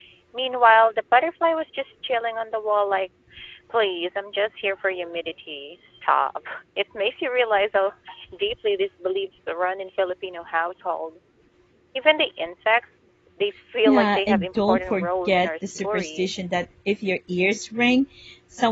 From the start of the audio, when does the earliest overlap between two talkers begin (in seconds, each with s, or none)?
13.8 s